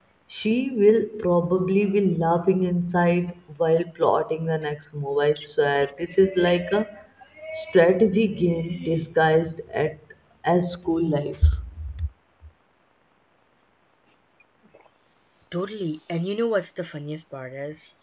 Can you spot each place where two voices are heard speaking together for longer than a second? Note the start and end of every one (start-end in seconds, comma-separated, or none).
none